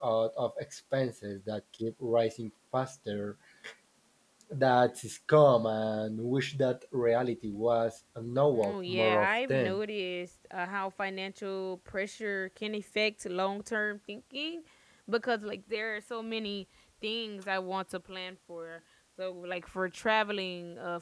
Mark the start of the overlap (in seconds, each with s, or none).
8.5 s